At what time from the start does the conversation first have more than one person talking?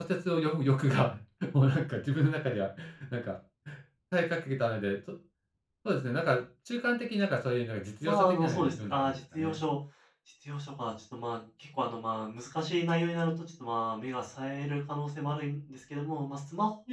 8.0 s

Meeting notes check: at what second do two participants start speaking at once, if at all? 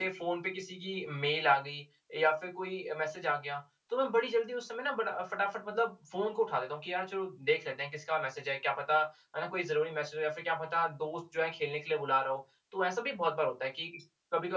none

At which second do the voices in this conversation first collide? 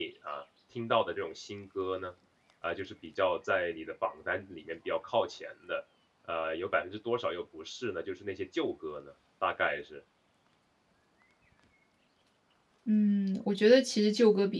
none

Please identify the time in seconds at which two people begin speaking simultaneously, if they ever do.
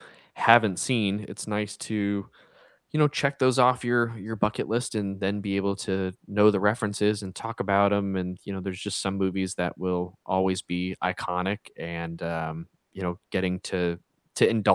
none

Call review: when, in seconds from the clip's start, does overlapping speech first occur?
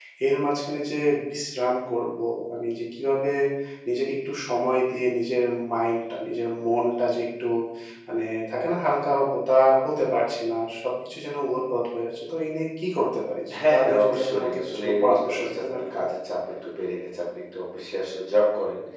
13.5 s

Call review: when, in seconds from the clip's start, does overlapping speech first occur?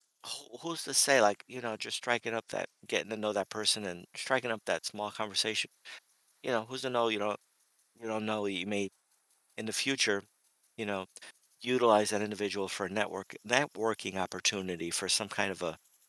none

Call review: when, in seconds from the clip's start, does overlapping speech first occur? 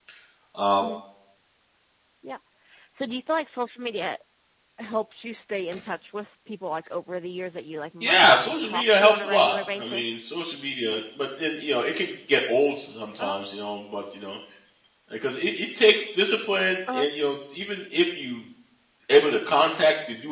8.0 s

